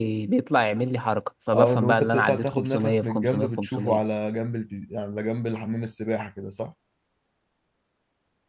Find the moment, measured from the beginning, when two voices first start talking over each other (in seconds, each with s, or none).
1.5 s